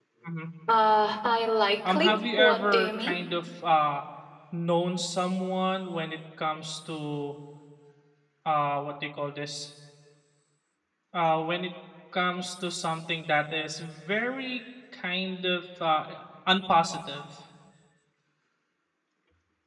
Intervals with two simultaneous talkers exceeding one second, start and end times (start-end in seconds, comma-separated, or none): 1.8-3.2